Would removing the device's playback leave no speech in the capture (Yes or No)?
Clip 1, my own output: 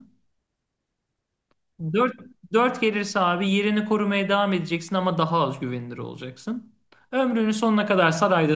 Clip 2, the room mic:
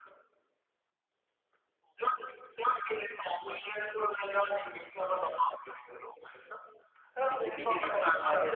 No